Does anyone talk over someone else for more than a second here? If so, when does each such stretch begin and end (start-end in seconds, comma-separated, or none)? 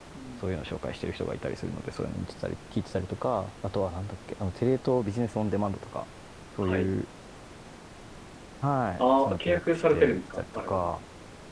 9.0-10.9